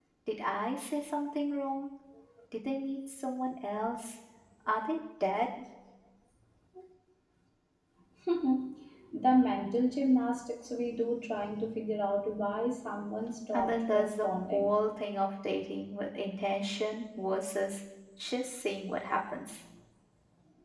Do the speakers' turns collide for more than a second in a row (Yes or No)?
Yes